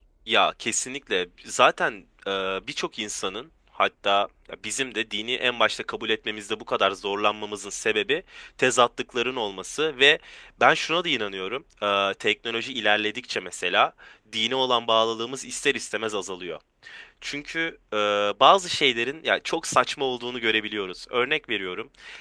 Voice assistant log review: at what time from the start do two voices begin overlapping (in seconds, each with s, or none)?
none